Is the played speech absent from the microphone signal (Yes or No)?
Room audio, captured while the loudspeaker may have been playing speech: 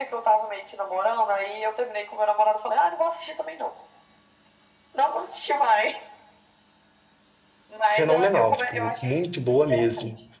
No